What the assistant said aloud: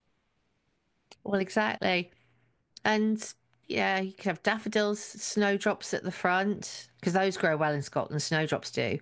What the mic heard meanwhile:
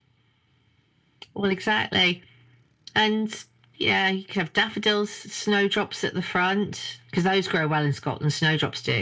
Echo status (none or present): present